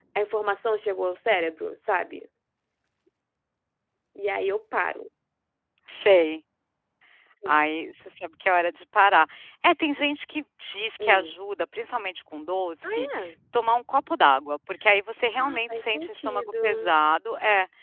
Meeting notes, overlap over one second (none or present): present